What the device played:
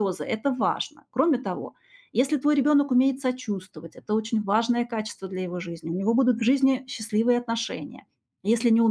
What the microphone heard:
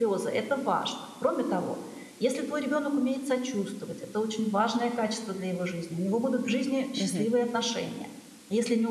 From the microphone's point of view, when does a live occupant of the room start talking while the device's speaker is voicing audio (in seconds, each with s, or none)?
6.9 s